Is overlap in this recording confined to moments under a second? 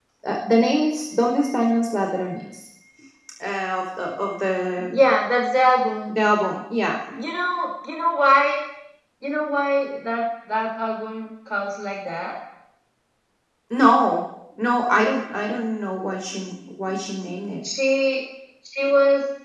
Yes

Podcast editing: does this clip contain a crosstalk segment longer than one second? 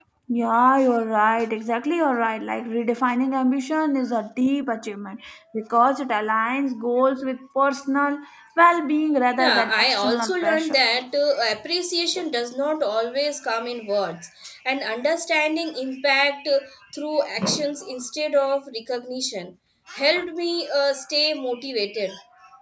Yes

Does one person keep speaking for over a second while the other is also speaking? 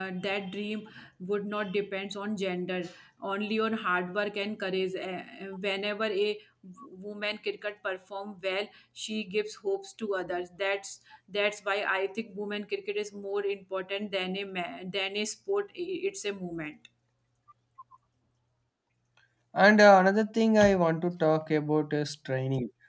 No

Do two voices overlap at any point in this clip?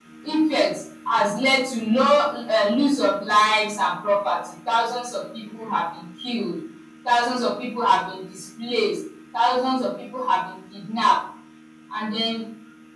No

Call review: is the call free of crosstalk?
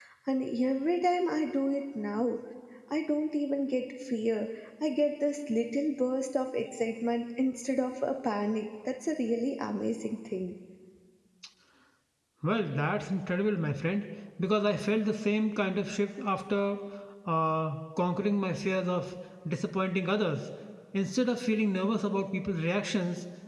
Yes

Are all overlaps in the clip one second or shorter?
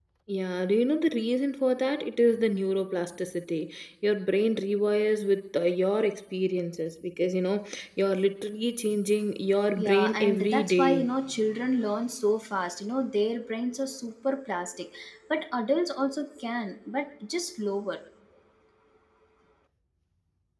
No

